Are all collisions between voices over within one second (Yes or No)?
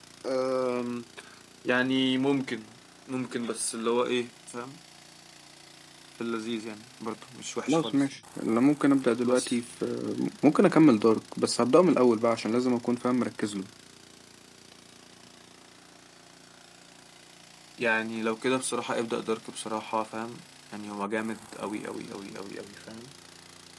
Yes